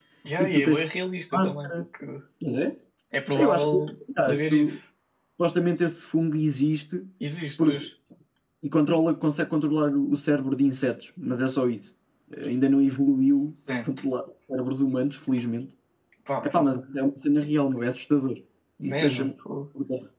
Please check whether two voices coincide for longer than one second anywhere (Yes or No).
No